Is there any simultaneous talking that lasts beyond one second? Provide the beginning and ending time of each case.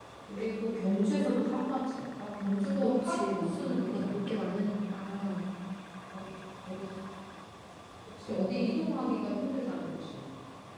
2.8-4.2

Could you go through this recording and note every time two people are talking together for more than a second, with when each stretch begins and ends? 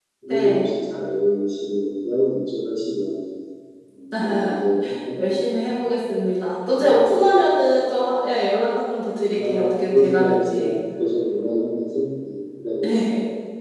9.3-10.7

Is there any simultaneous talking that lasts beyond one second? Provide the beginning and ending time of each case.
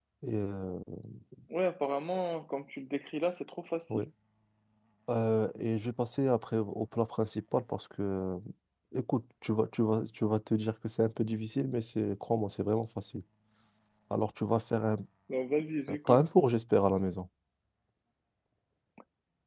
none

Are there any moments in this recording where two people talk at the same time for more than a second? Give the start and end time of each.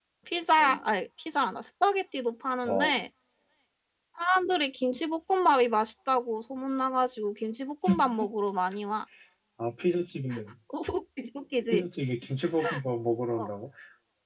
none

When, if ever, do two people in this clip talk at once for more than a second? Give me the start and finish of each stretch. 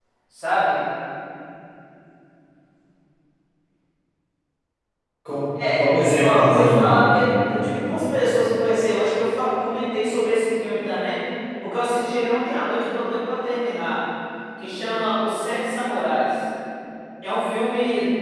5.8-7.3

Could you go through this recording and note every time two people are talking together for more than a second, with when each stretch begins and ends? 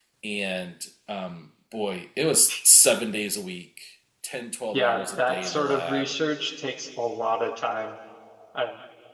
4.7-6.1

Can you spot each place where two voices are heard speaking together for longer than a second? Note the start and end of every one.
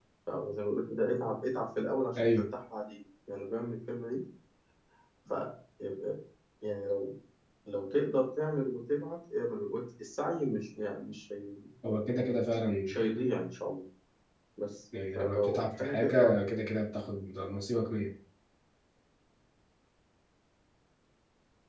15.2-16.4

